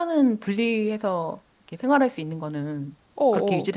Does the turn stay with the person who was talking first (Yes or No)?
No